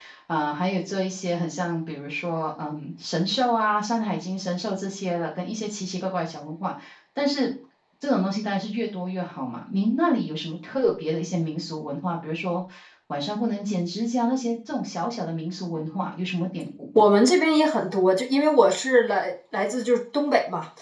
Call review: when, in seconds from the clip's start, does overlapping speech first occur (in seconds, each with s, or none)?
none